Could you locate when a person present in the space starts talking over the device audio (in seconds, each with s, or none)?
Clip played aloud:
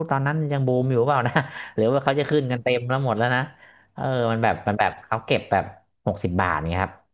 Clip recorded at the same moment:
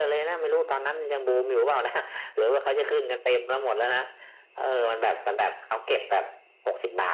none